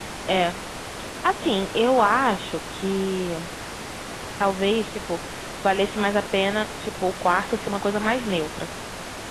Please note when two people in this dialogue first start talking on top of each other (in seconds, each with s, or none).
none